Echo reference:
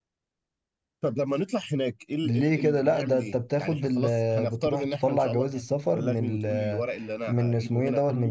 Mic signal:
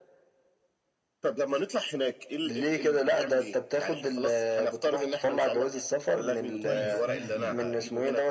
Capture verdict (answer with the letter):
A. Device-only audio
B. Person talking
B